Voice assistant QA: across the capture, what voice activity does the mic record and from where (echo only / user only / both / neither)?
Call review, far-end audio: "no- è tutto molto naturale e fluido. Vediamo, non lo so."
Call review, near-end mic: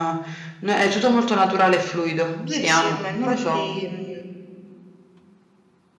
both